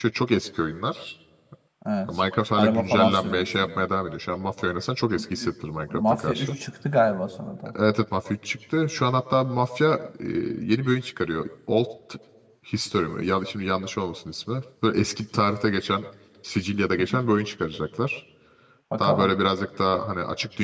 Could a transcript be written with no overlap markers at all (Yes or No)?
No